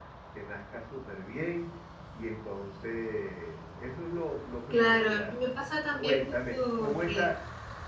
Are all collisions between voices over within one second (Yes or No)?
No